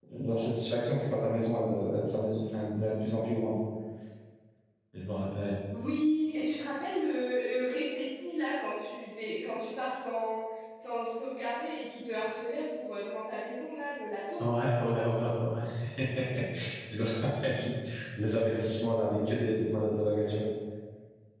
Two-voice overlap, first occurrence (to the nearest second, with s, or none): none